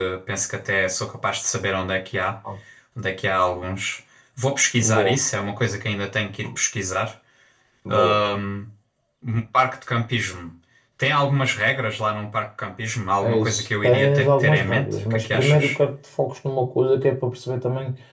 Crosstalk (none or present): present